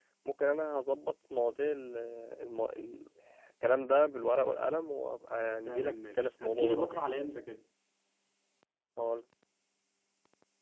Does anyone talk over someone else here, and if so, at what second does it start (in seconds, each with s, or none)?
5.7 s